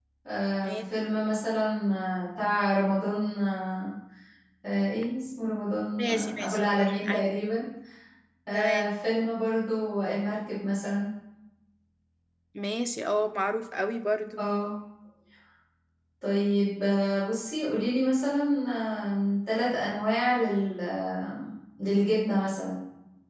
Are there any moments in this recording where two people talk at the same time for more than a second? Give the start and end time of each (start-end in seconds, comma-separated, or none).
6.0-7.2